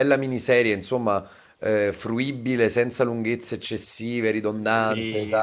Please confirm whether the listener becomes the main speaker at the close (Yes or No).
Yes